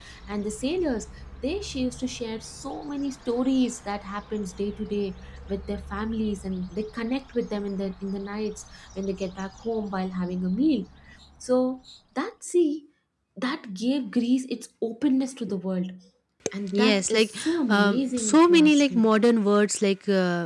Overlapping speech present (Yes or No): Yes